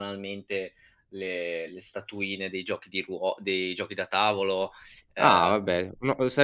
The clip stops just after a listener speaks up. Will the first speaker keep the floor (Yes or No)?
No